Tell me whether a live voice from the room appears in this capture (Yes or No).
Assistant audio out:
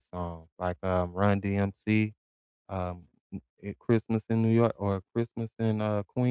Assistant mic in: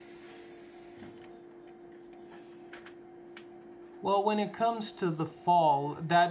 Yes